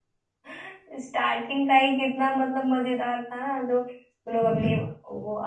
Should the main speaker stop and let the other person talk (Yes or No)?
No